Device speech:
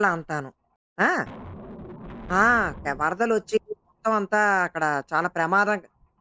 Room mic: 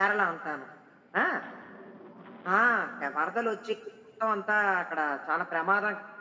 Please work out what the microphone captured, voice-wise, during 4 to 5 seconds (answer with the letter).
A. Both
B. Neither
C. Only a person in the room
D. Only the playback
D